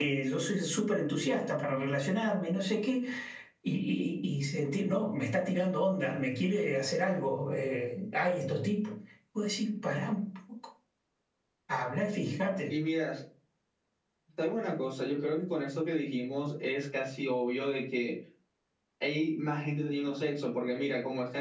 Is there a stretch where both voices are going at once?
No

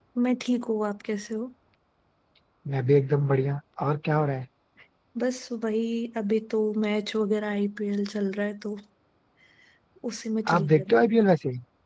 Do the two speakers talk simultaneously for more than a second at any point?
No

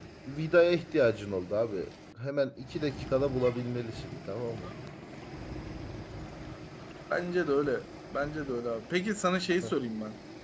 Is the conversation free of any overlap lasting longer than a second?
Yes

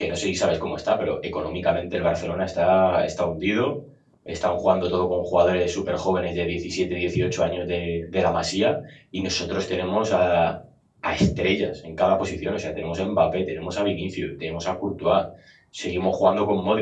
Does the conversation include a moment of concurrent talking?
No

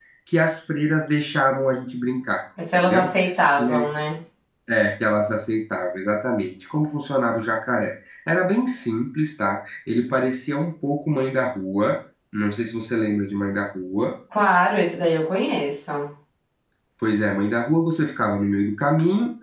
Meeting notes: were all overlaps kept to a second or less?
Yes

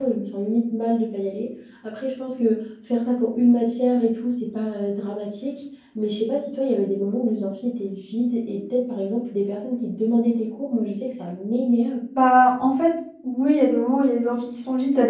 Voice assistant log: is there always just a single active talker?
Yes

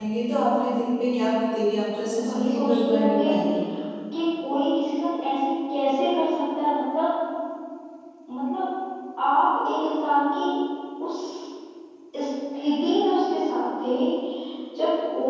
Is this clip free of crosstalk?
No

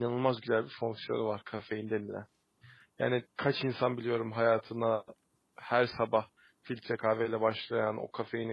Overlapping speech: No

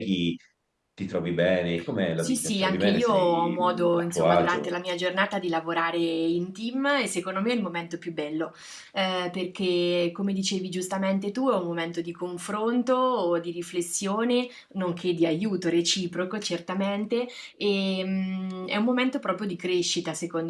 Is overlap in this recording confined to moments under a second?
No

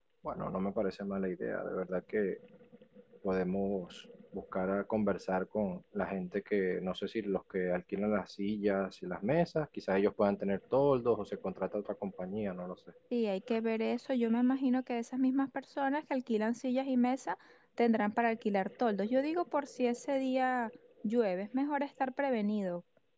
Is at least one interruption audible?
No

